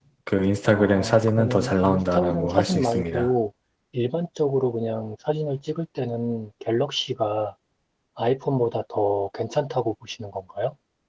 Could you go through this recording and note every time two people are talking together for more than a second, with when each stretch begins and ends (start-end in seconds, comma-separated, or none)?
0.7-3.3